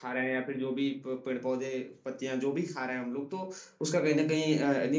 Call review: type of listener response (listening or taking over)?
listening